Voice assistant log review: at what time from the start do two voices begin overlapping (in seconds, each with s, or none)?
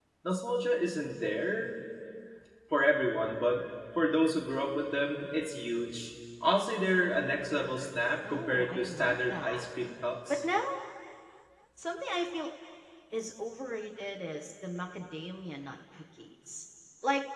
8.2 s